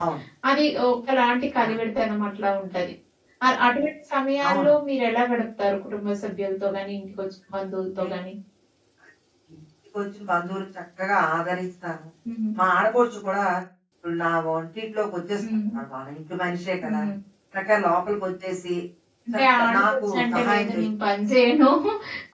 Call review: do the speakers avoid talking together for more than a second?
No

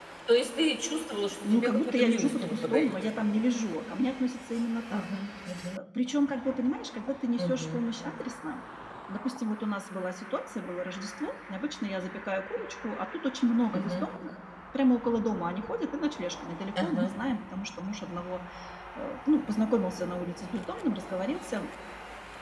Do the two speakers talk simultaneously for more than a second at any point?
Yes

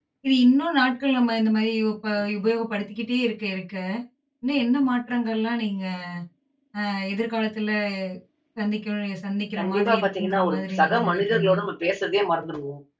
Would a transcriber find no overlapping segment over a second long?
No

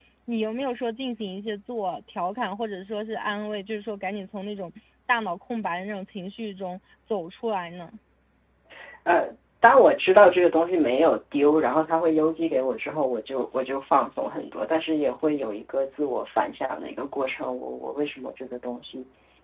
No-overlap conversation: Yes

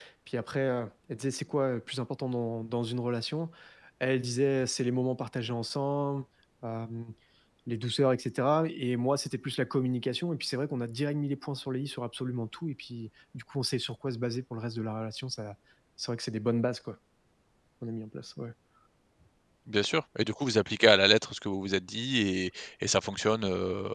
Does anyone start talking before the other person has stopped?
No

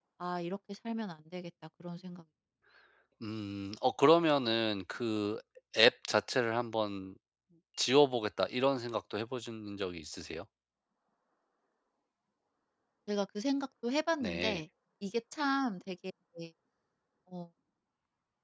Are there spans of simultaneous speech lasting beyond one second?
No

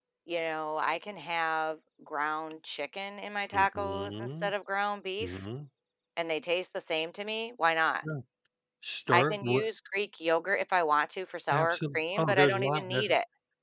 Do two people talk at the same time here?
Yes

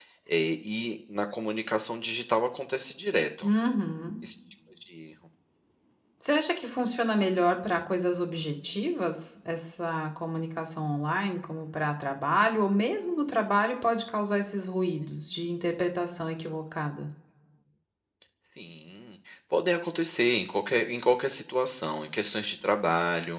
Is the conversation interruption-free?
Yes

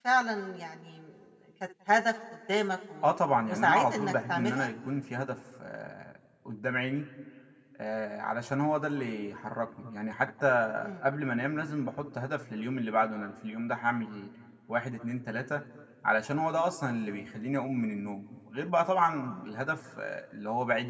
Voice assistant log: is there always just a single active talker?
No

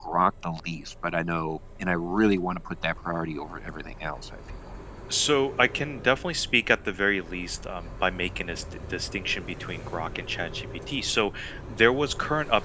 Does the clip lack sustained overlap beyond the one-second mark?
Yes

